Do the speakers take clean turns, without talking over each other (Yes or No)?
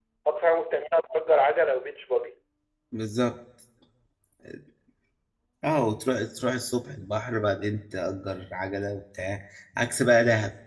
Yes